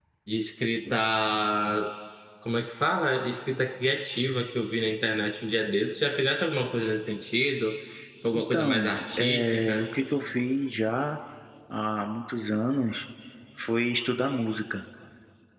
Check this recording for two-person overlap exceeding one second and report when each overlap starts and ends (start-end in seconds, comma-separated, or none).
8.3-9.8